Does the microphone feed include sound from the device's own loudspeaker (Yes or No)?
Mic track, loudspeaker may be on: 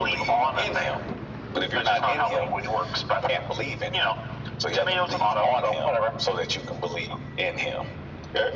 Yes